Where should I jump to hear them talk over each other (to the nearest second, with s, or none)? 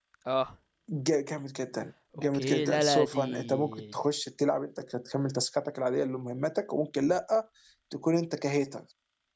2 s